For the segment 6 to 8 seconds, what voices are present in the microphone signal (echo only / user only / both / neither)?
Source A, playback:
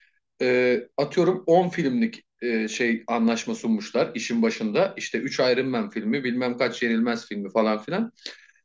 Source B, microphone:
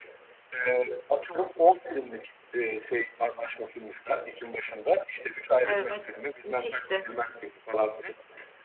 both